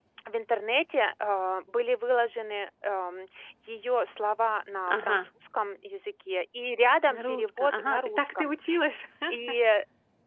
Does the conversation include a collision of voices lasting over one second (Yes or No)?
Yes